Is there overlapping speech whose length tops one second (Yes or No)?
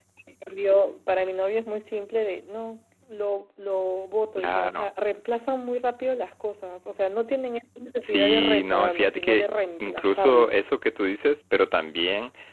Yes